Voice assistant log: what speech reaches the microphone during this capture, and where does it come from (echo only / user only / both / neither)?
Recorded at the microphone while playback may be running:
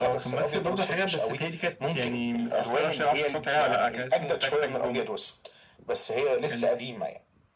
echo only